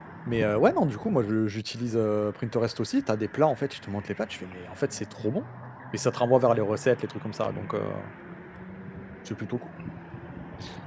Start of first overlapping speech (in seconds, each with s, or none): none